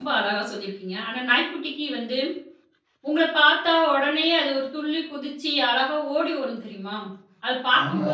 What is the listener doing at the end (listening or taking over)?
taking over